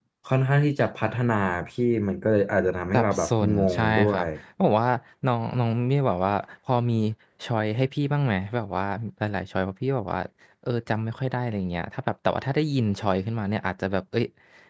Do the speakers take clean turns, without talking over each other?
No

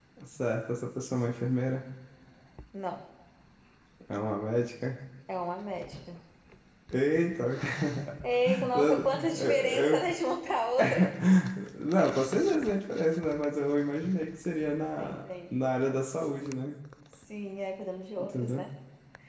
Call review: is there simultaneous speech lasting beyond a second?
Yes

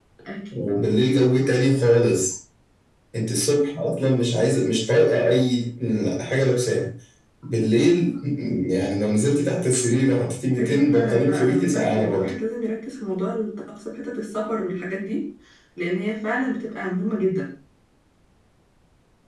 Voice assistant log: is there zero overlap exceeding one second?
No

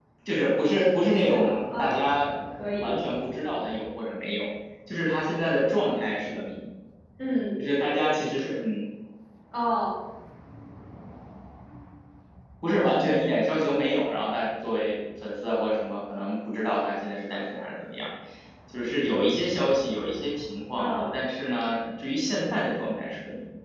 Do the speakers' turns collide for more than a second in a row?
Yes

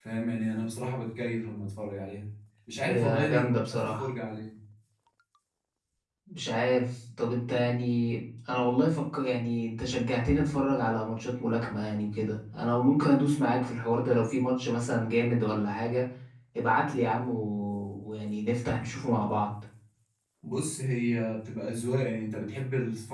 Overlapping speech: Yes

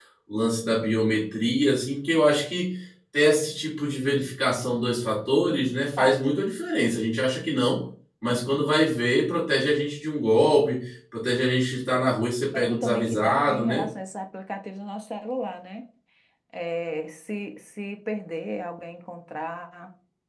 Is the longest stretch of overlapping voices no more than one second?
No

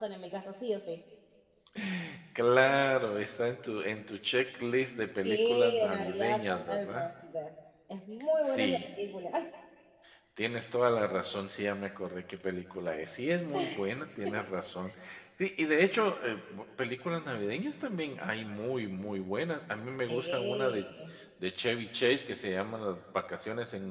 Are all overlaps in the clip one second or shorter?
No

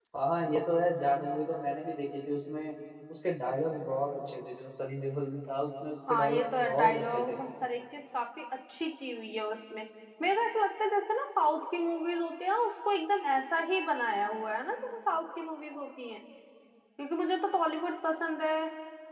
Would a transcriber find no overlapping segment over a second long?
No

